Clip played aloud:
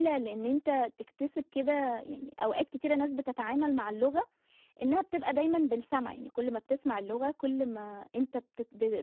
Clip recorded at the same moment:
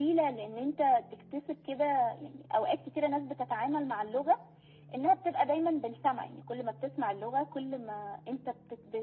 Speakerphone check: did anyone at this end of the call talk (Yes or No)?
No